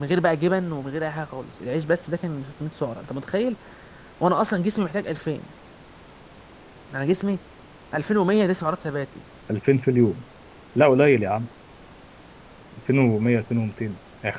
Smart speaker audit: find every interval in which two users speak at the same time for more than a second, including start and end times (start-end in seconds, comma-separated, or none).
none